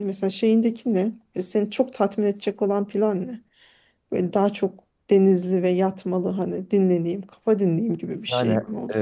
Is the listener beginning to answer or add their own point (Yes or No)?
Yes